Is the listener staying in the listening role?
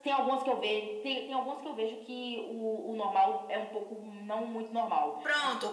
No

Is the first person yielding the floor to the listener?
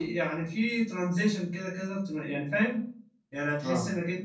No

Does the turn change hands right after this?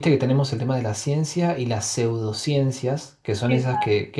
No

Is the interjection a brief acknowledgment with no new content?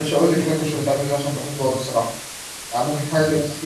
Yes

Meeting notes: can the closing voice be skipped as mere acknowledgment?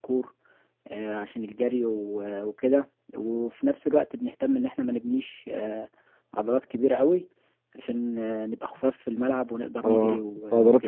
No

